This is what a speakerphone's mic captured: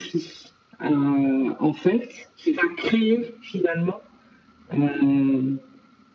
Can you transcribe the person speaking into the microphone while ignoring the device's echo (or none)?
none